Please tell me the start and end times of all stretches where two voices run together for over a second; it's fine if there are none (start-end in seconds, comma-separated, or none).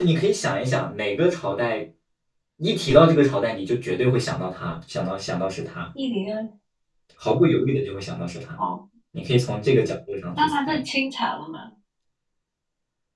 none